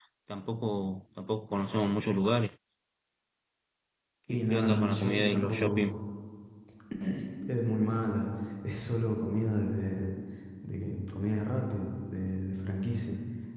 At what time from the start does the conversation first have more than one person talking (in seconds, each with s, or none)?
4.3 s